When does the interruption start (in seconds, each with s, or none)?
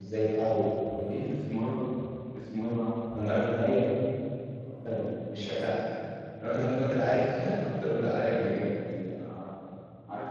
7.2 s